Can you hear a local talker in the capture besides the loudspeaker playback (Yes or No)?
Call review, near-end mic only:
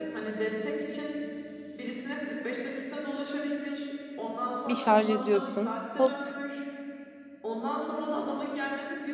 Yes